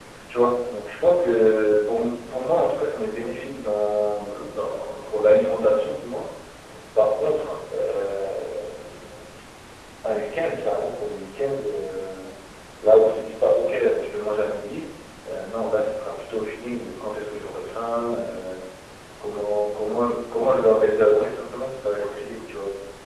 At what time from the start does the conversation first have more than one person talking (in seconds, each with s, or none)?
none